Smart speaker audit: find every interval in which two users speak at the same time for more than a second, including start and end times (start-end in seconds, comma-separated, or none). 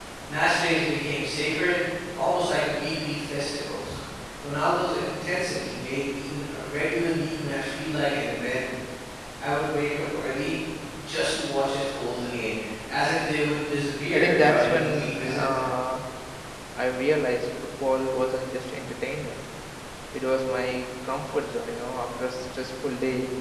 14.1-15.6